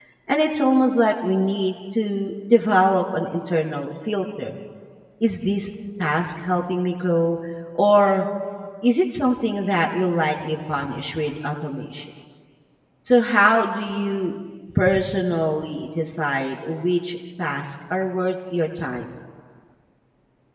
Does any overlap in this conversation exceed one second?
No

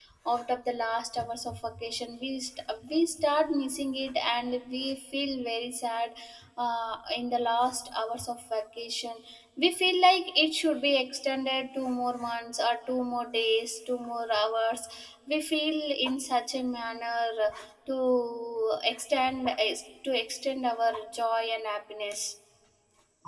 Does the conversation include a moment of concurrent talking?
No

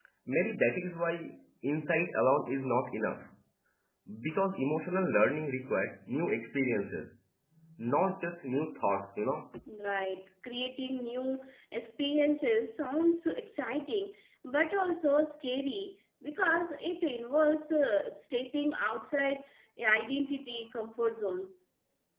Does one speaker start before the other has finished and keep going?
No

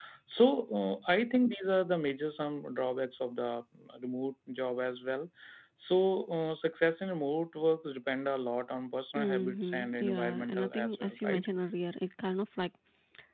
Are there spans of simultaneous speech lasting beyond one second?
Yes, from 9.2 s

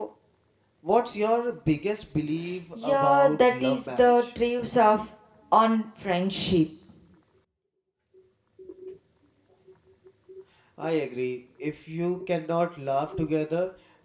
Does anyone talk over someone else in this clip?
Yes, from 2.8 s

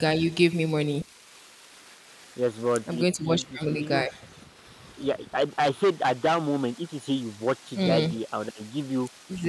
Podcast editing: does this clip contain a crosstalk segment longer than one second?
Yes, from 2.9 s

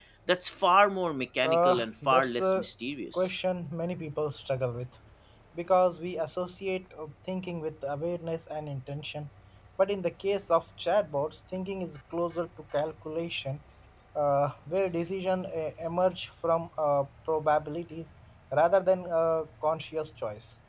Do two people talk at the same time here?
Yes, from 1.4 s

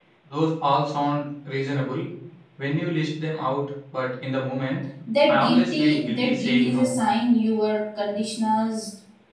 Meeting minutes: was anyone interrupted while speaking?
Yes, from 5.3 s

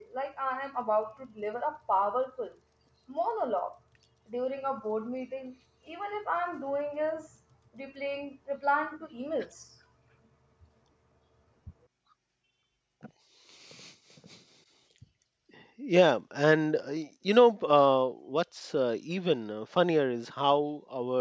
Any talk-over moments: No

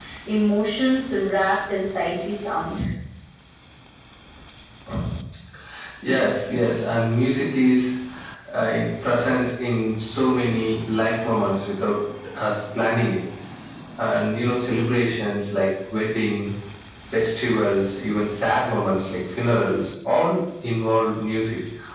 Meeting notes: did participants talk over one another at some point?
No

